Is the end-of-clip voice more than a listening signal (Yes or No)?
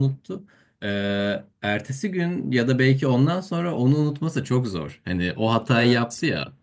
No